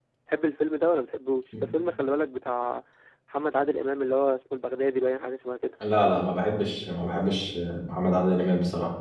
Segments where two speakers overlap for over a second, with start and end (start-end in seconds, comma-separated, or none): none